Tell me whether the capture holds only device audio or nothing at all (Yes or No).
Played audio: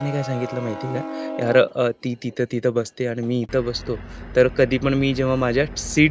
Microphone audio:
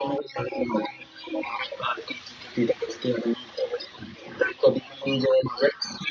Yes